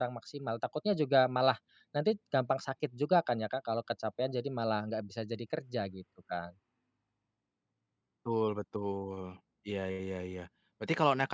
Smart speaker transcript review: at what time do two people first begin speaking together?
none

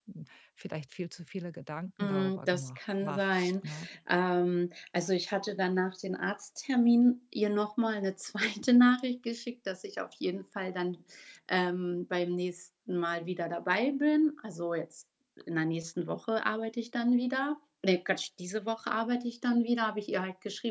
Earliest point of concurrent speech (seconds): 2.0 s

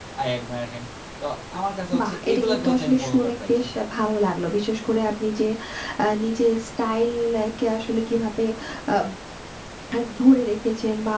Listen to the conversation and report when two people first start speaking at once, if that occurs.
2.0 s

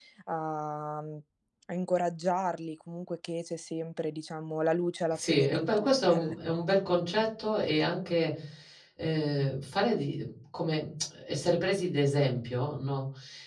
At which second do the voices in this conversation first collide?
5.1 s

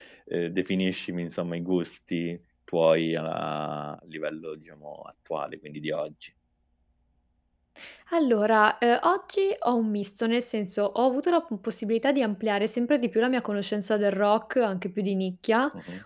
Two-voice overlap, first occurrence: none

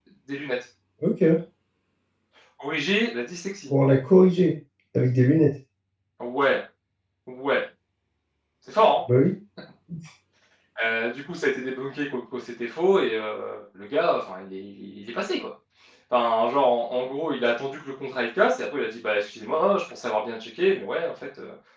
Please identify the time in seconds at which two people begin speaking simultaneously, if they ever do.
none

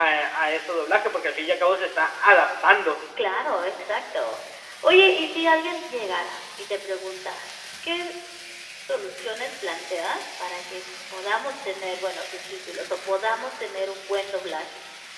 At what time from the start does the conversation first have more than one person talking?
none

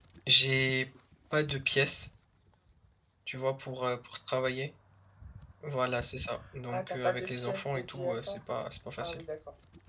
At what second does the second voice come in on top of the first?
6.7 s

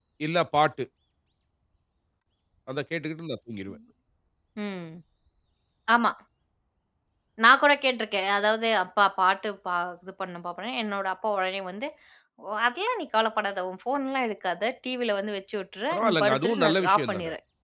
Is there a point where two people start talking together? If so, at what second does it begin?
15.9 s

